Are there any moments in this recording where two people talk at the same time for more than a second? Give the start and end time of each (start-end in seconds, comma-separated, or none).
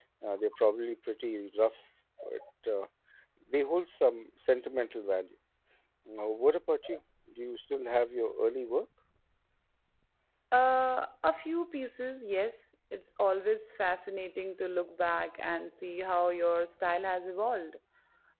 none